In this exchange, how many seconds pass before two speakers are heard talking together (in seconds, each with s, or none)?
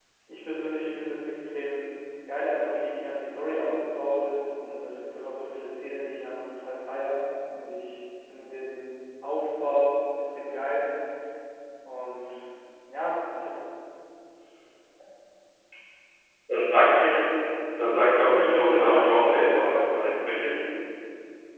18.1 s